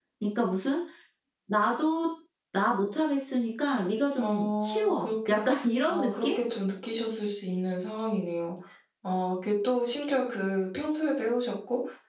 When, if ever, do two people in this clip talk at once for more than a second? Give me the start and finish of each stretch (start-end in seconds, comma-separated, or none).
4.2-5.4